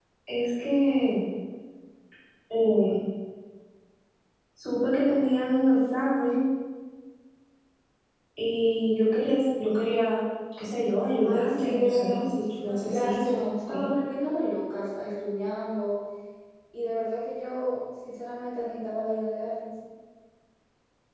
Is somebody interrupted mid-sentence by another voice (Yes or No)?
Yes